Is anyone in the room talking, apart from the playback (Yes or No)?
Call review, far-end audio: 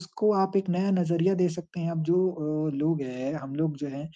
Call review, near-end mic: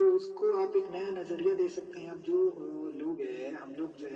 No